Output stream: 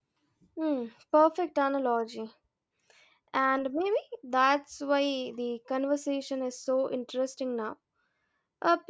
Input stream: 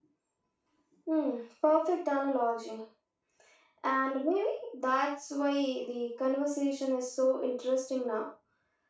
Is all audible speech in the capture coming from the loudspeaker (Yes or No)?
Yes